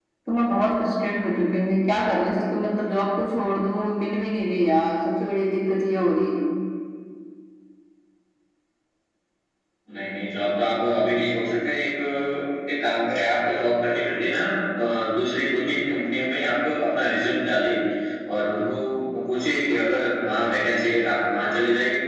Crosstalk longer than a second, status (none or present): none